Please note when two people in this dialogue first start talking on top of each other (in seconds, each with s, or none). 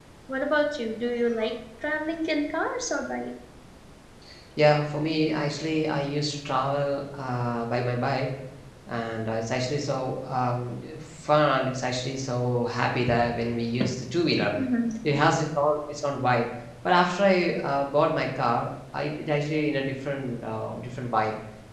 none